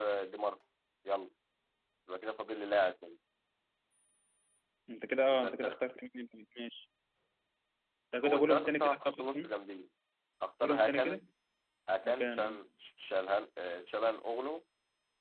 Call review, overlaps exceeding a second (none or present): present